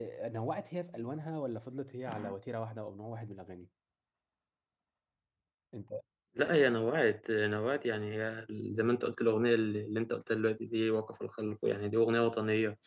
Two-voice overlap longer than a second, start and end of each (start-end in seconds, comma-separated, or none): none